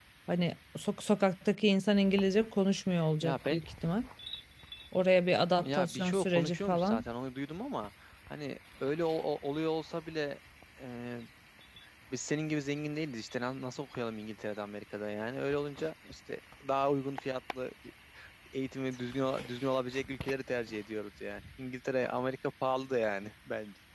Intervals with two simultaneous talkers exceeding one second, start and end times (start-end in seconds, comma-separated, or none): 5.6-7.0